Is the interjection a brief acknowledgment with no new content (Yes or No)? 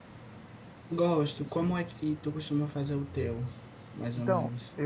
No